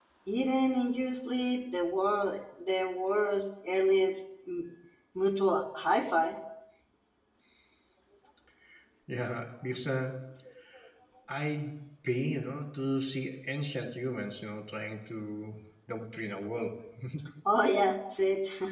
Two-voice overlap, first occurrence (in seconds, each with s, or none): none